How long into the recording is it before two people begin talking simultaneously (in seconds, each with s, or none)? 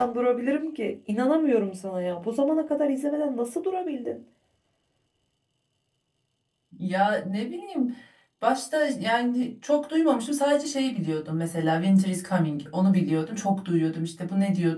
none